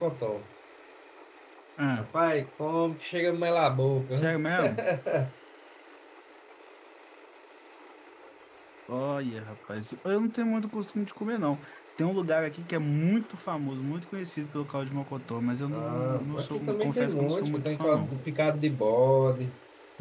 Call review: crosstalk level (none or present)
present